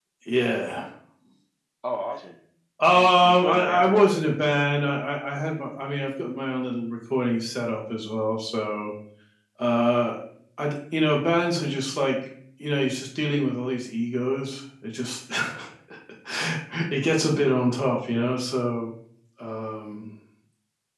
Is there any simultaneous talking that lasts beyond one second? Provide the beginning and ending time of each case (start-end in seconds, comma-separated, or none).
2.9-4.6